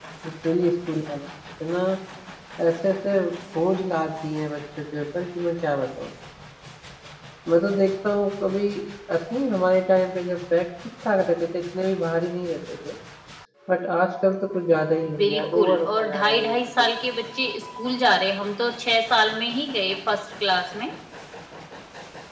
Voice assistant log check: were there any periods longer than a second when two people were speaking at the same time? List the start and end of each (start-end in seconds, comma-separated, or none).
15.2-16.9